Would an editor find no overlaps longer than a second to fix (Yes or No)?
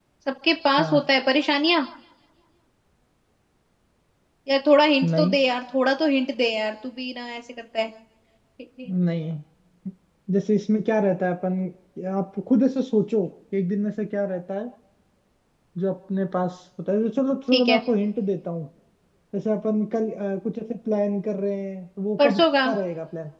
Yes